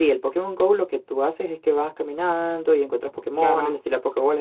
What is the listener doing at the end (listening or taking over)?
listening